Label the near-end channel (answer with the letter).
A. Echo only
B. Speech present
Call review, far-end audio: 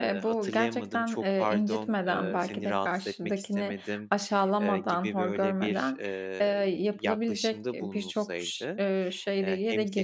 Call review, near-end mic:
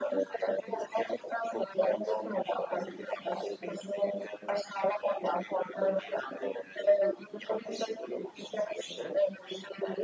A